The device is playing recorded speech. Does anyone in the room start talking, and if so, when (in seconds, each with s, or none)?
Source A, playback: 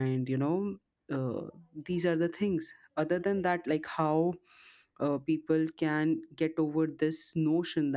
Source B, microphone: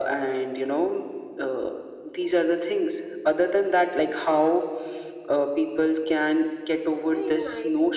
7.0 s